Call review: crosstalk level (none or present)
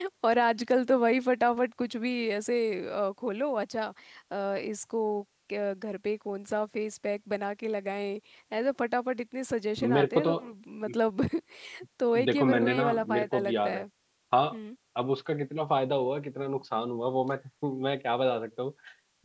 present